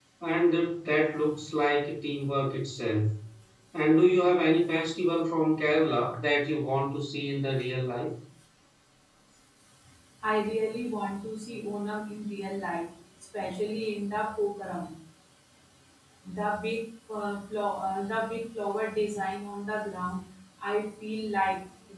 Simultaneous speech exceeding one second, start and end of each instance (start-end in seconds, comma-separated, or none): none